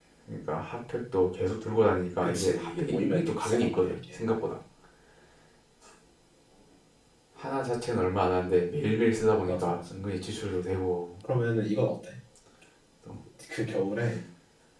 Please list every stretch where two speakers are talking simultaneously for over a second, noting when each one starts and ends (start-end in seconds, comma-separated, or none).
2.2-4.2